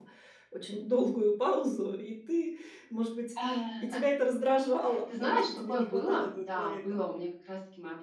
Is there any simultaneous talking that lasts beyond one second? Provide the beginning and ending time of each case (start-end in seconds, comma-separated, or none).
5.1-7.0